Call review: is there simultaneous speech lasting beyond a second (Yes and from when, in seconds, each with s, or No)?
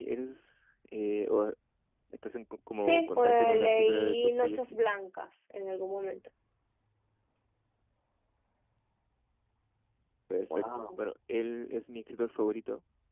Yes, from 2.8 s